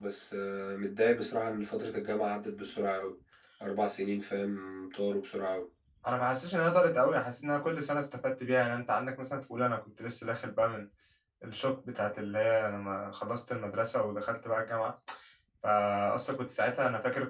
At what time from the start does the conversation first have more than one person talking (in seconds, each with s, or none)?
none